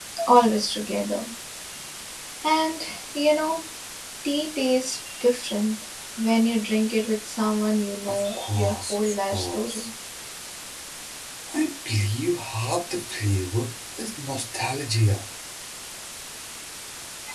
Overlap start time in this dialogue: 8.1 s

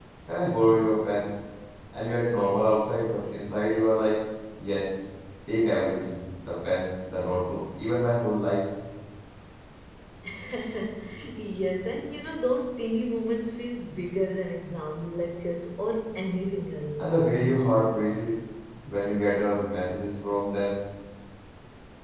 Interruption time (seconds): none

